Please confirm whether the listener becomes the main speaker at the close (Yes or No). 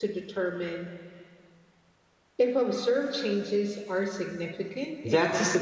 Yes